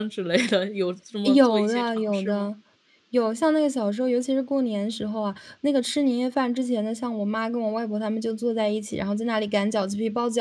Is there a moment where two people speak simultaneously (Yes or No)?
Yes